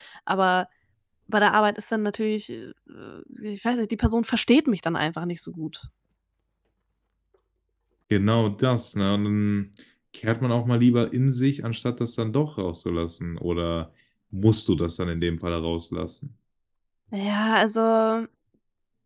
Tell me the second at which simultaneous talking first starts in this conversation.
none

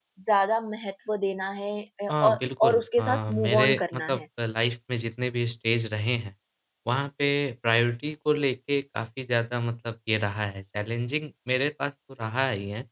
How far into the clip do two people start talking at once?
2.1 s

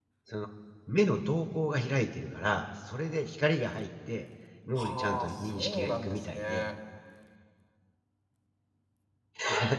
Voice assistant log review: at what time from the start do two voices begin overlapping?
4.8 s

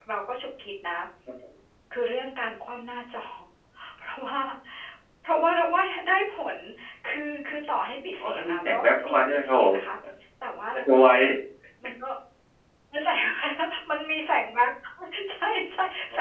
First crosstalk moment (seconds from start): 8.2 s

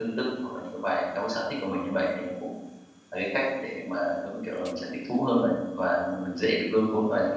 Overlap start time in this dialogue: none

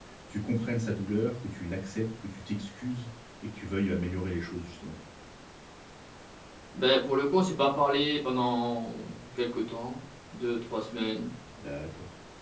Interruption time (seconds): none

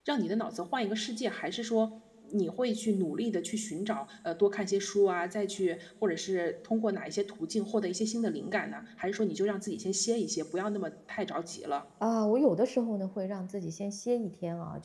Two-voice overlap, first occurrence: none

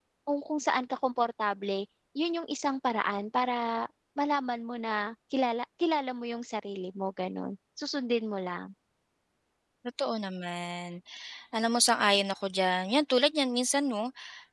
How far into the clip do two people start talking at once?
none

